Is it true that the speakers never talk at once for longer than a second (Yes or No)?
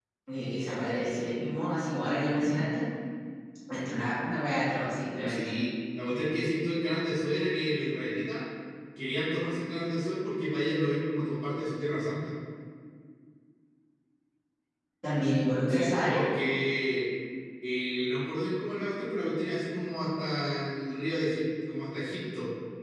Yes